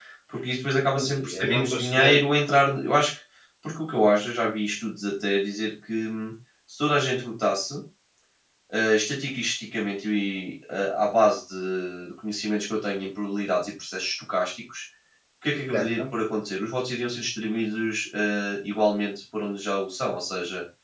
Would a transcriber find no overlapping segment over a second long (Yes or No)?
No